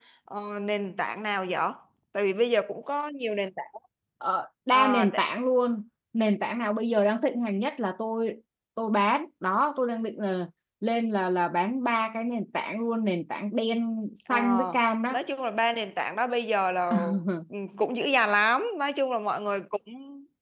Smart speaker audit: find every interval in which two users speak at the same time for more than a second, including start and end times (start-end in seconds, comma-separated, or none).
none